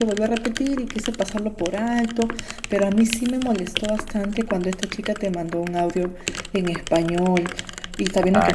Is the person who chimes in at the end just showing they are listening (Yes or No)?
Yes